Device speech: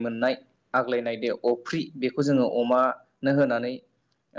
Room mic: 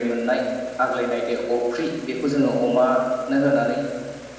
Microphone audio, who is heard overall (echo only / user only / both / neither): echo only